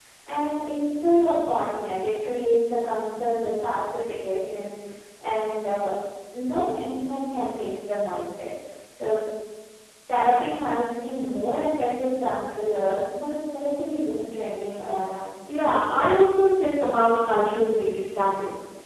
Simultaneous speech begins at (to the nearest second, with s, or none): none